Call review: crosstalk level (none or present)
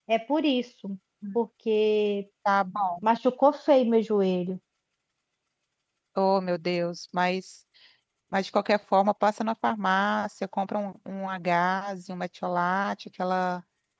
none